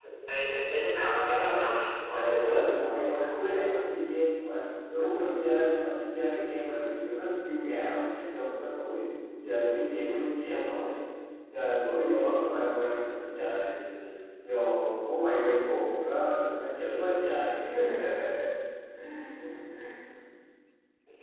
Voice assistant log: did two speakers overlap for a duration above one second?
Yes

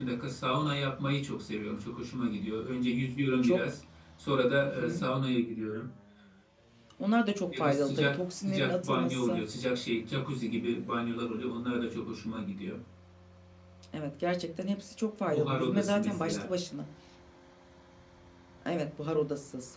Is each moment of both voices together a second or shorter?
No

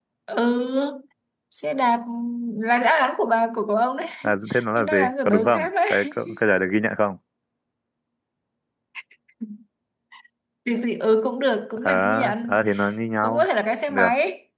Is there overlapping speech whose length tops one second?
Yes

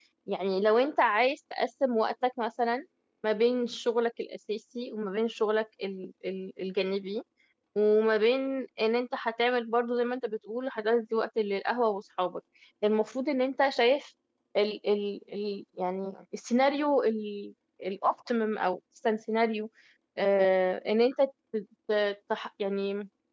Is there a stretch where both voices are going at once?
No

